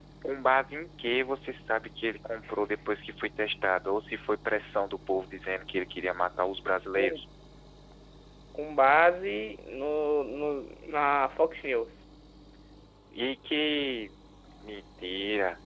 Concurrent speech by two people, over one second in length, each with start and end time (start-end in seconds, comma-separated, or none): none